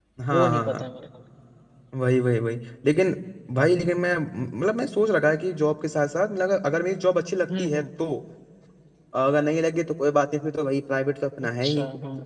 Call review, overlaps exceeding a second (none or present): none